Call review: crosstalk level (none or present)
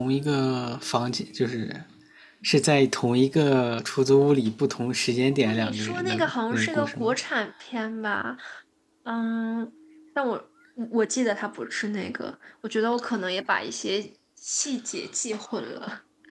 present